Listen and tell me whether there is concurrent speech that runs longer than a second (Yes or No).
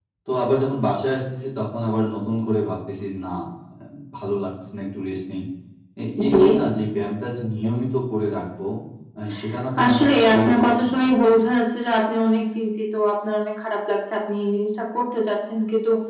Yes